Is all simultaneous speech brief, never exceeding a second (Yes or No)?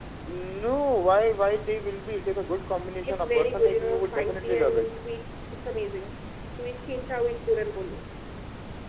No